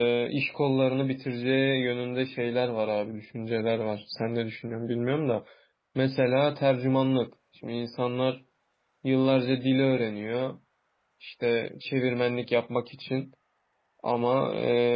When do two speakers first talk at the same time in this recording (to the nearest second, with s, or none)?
none